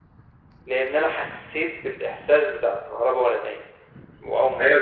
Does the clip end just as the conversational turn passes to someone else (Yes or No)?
Yes